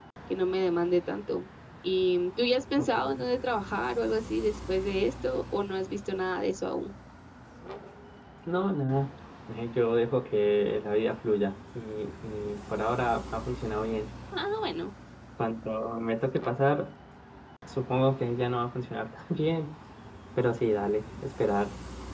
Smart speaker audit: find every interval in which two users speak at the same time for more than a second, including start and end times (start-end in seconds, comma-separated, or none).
none